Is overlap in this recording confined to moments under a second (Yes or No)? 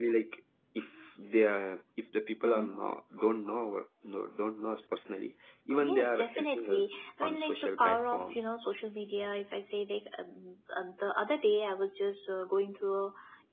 No